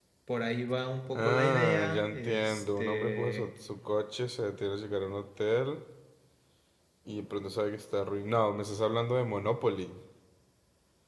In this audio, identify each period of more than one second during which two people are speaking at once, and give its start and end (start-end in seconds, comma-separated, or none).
1.1-3.5